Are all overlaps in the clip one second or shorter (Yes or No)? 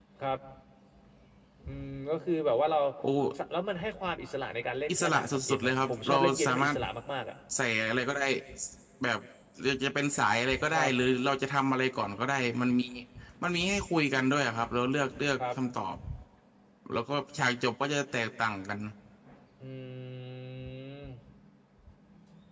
No